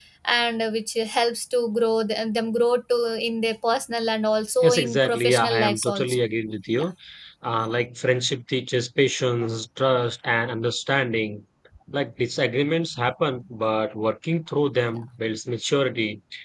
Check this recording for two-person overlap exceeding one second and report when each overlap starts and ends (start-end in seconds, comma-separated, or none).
4.6-6.2